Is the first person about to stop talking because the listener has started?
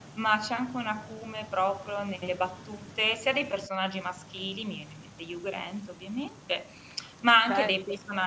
No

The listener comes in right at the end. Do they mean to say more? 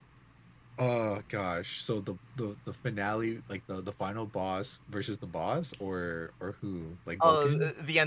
Yes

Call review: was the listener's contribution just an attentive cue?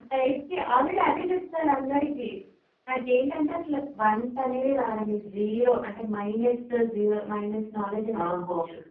No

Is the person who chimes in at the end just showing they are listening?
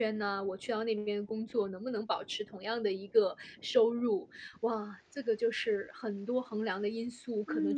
No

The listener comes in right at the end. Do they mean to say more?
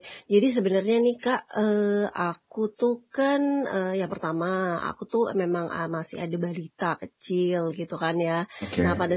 No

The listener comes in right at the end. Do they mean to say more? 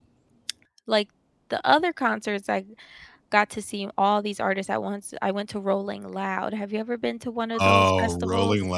Yes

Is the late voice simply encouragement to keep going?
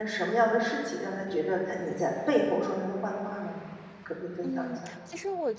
No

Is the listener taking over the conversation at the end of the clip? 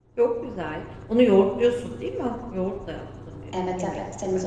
Yes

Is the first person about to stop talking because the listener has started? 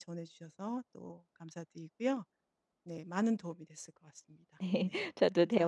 Yes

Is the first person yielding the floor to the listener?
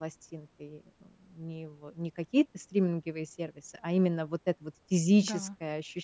No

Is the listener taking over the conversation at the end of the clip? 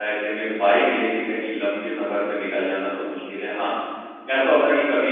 No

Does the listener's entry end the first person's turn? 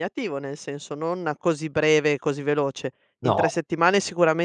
No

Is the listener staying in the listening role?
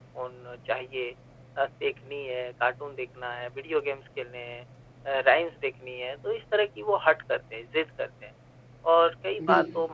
Yes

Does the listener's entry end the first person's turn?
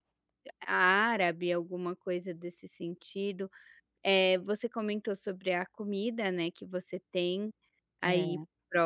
No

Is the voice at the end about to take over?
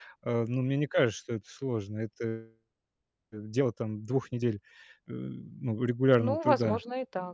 Yes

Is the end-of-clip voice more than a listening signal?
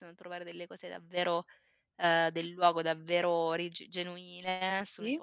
No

